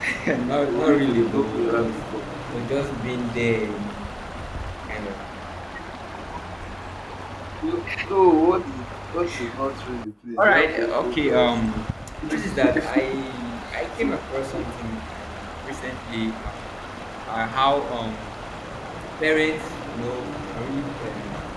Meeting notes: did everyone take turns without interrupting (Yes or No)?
No